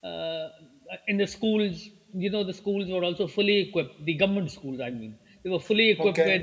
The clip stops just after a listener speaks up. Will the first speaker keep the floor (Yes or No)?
Yes